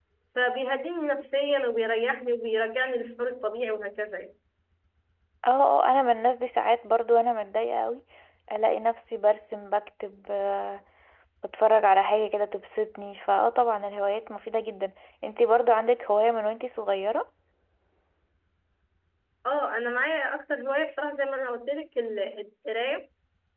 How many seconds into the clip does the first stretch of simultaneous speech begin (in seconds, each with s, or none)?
none